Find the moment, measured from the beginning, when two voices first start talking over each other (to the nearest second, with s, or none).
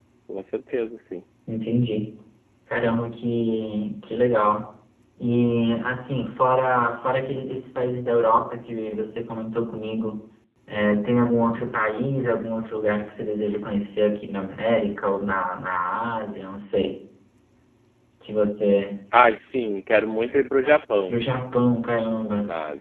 none